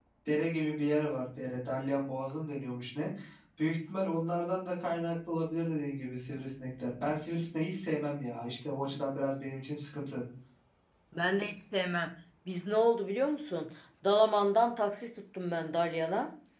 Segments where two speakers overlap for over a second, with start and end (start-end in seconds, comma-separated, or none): none